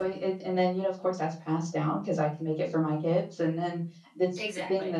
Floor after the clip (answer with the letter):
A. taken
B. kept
B